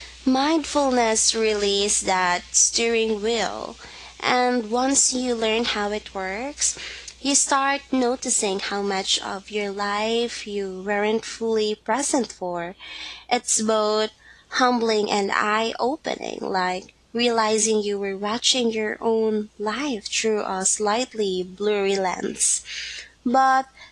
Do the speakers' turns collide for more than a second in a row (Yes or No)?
No